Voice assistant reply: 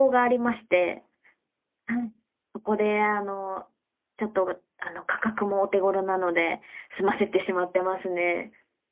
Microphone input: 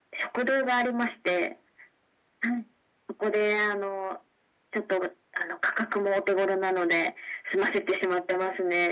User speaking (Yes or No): No